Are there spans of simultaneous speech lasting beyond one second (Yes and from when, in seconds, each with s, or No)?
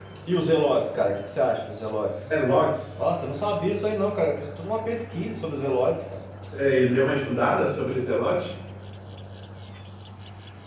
No